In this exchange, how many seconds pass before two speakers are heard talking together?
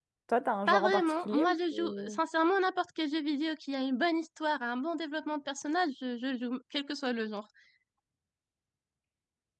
0.7 s

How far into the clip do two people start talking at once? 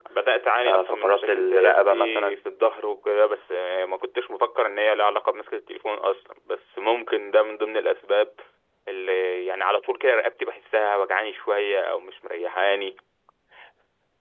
0.6 s

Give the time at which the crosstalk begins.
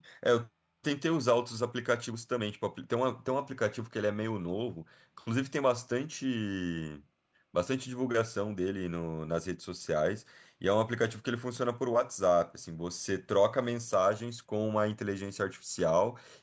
none

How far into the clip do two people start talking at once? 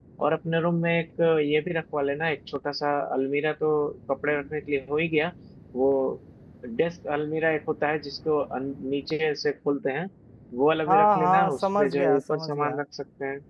10.9 s

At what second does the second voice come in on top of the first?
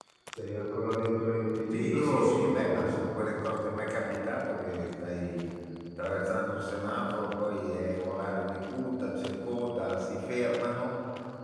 1.7 s

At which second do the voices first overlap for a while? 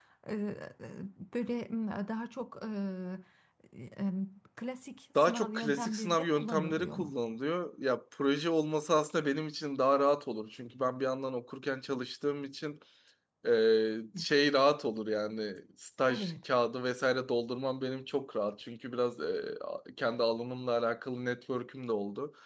5.2 s

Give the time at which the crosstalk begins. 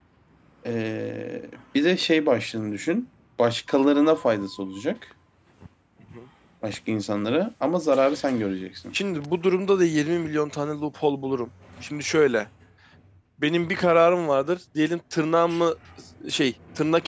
none

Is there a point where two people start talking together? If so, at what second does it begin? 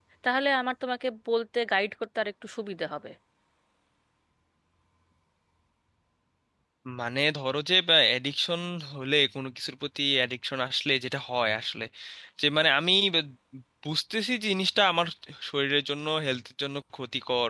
none

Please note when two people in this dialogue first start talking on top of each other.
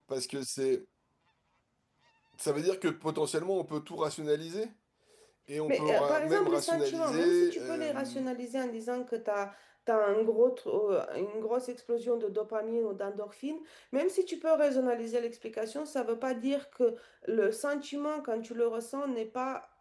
5.7 s

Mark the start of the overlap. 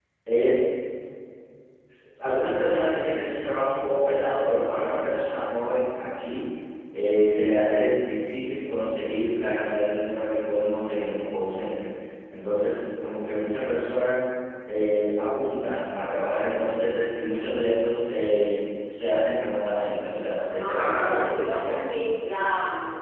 20.6 s

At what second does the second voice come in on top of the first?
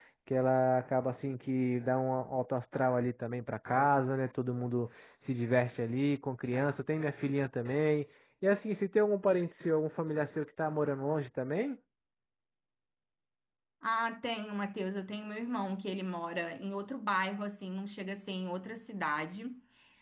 none

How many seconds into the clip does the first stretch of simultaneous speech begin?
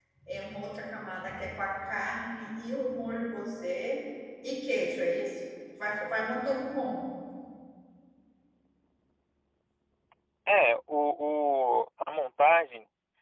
none

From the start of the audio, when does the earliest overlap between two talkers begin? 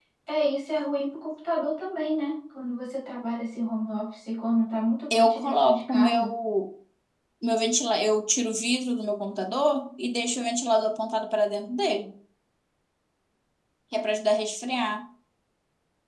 5.1 s

